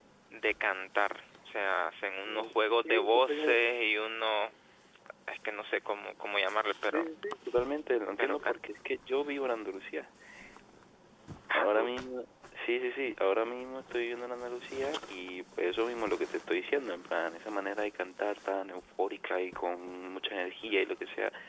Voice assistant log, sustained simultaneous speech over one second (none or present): present